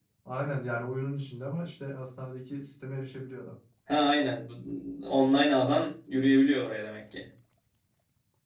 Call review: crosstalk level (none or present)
none